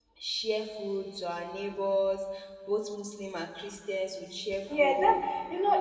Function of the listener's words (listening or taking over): taking over